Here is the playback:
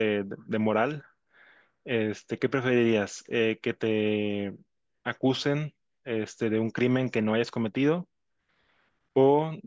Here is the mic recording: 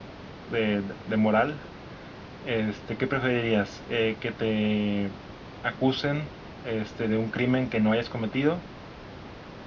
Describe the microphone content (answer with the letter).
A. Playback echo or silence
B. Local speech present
A